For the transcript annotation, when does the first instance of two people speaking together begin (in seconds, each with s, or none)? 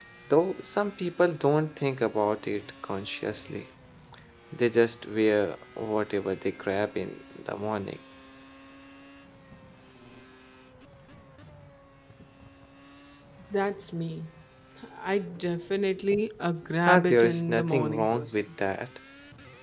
16.9 s